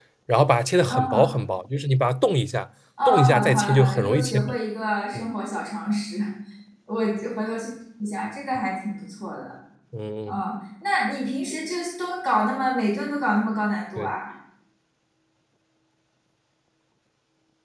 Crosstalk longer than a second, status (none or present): present